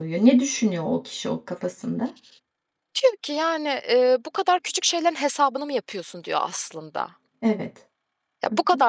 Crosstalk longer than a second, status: none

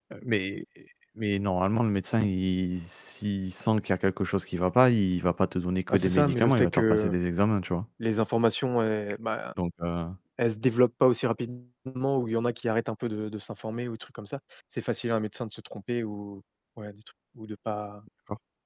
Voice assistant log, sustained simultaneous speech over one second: present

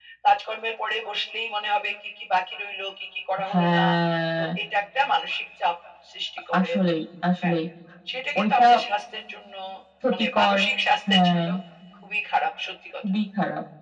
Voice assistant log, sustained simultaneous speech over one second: none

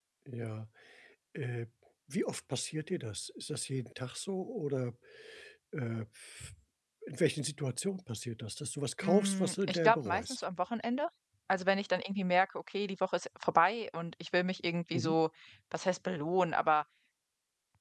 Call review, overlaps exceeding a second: present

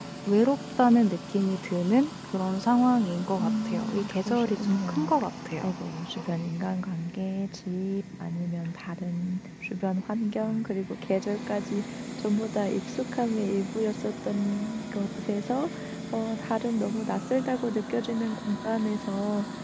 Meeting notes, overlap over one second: present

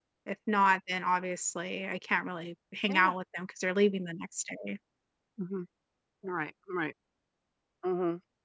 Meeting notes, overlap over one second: none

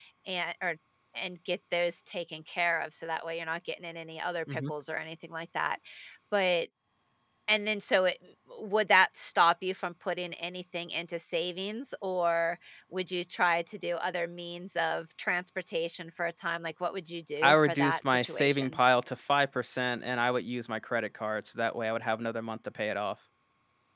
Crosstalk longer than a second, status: present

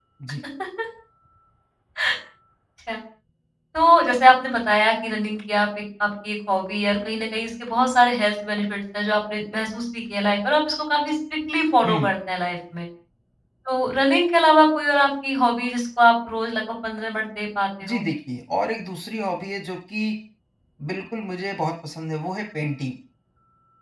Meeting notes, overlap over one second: none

